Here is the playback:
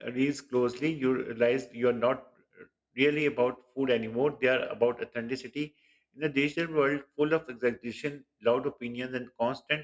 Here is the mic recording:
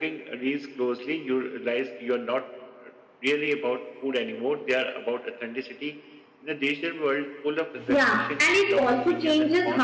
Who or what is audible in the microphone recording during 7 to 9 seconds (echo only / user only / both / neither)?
both